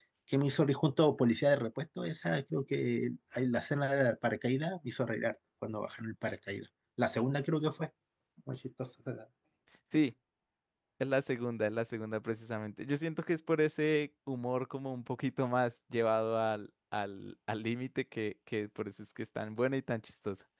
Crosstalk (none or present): none